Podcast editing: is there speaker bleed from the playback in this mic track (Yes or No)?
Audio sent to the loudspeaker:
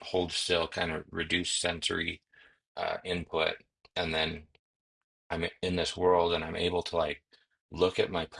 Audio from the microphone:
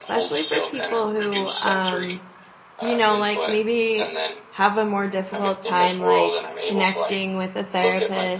Yes